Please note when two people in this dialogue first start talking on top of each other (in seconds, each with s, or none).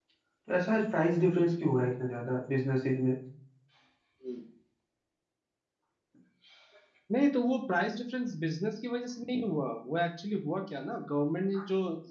none